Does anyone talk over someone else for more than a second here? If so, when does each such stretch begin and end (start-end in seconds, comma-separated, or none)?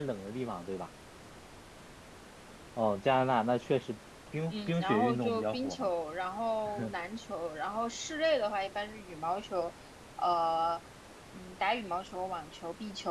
4.5-5.9